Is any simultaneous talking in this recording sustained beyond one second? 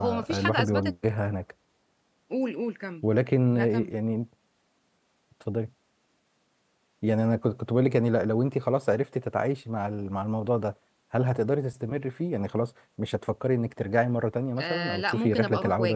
Yes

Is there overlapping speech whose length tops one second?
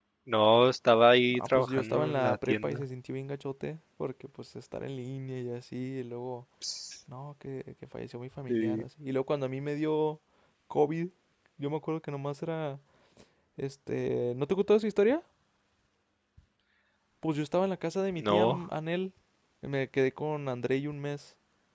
Yes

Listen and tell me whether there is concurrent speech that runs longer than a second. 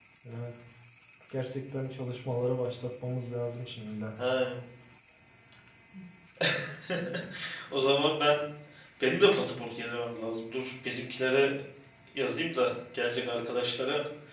No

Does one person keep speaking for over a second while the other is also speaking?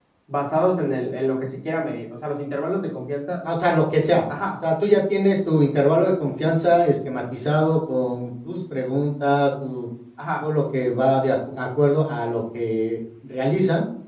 No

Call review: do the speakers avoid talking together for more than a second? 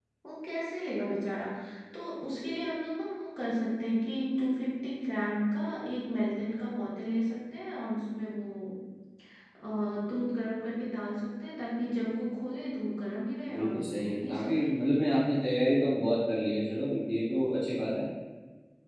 No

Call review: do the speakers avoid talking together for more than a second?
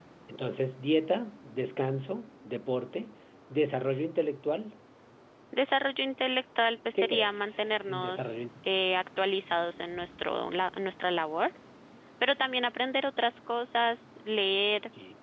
No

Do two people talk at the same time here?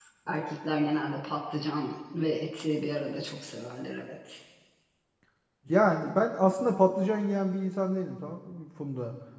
No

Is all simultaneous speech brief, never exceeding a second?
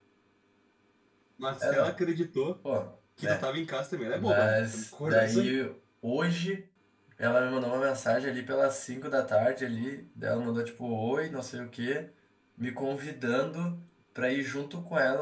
No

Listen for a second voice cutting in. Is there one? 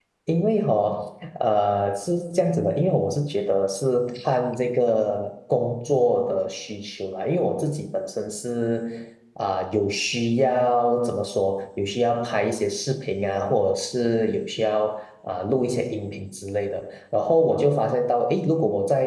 No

